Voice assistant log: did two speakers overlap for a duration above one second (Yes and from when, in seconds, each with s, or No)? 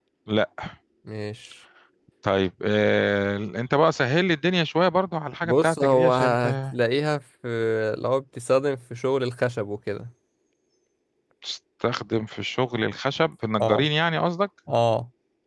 Yes, from 5.4 s